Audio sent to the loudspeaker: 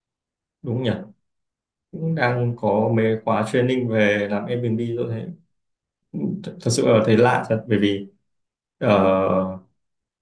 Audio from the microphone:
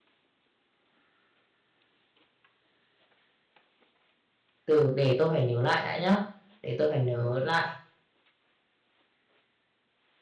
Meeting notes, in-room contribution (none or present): present